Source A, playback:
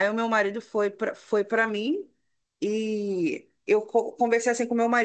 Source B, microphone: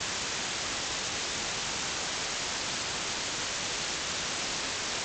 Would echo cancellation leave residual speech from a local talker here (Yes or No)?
No